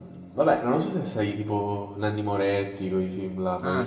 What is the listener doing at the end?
taking over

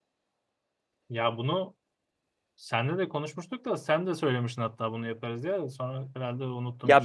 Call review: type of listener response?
taking over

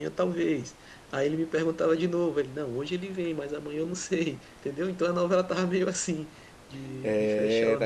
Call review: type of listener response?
taking over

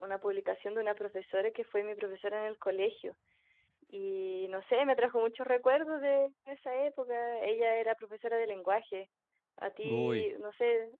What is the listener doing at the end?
listening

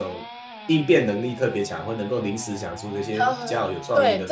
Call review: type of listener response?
taking over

